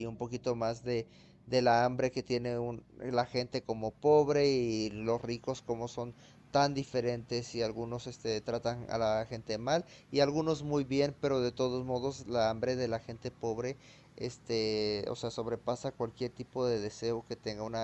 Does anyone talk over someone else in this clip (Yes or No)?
No